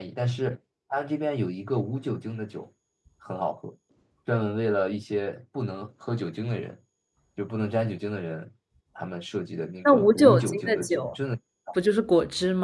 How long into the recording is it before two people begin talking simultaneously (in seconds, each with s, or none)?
9.8 s